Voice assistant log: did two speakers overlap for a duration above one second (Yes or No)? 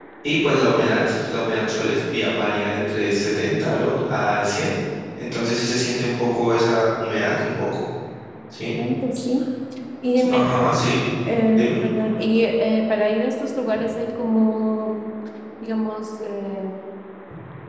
No